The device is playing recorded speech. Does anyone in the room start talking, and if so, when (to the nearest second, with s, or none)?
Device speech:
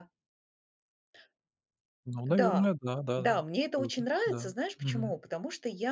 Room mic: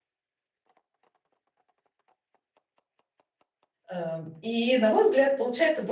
4 s